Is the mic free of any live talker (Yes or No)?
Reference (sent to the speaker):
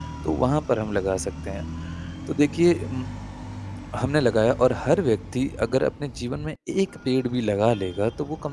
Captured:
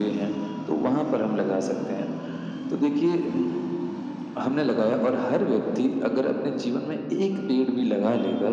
Yes